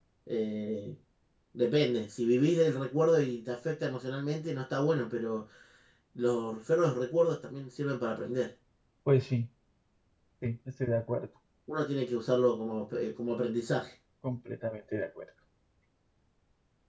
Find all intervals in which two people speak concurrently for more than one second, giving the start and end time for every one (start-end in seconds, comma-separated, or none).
none